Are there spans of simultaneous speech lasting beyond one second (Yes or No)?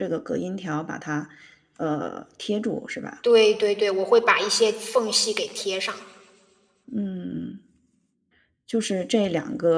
No